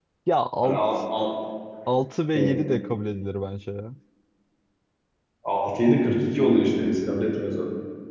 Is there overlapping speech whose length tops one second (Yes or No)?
No